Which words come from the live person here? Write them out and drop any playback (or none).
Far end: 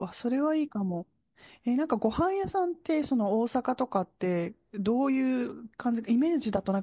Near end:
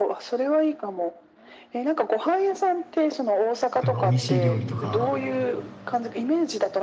例えば美味しい料理とか、